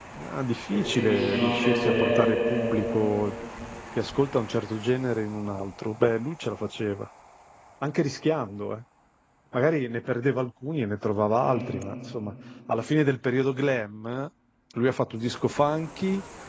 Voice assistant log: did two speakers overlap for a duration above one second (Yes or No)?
Yes